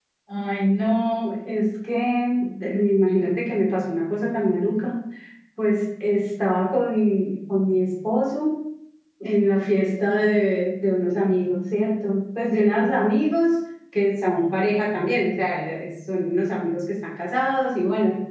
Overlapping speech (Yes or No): No